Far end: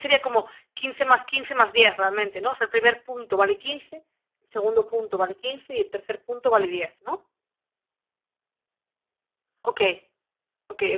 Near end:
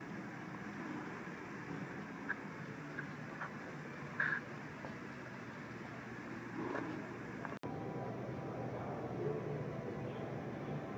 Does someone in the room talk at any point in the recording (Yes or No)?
No